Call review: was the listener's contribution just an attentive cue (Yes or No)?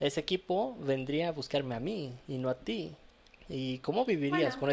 Yes